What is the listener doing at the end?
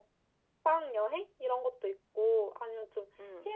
listening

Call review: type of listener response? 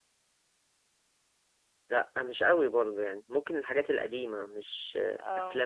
listening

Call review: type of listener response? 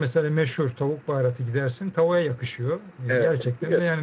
listening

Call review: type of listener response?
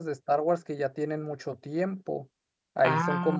listening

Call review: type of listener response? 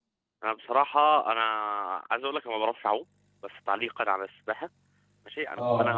listening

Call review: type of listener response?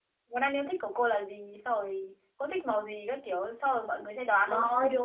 taking over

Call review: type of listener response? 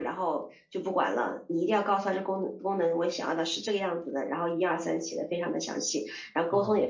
listening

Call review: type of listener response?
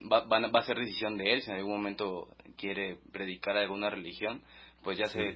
listening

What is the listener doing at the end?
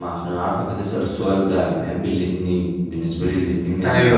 listening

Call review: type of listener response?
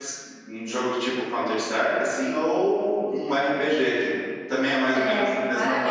taking over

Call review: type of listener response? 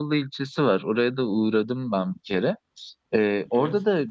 listening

